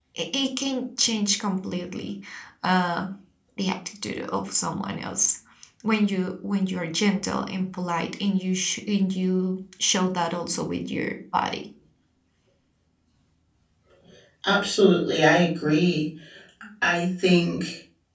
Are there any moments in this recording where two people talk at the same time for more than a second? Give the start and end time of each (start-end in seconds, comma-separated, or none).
none